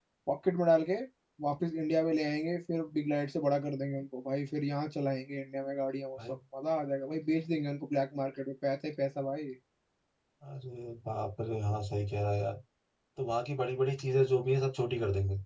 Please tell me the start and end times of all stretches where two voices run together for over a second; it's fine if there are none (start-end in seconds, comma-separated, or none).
none